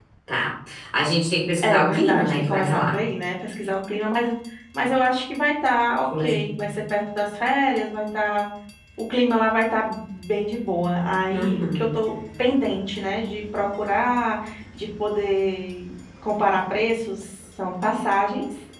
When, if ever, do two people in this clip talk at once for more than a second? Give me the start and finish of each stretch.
1.6-2.9

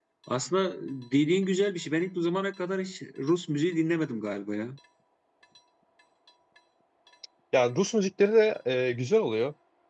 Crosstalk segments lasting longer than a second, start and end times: none

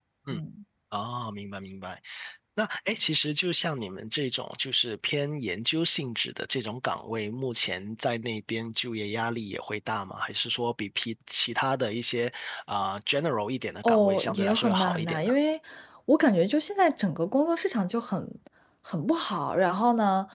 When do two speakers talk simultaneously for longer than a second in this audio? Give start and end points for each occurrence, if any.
13.8-15.3

